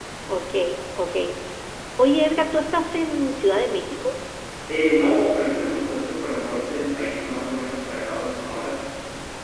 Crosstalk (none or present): none